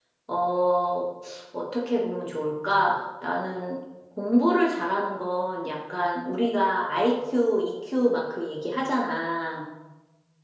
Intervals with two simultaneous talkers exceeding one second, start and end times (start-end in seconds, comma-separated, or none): none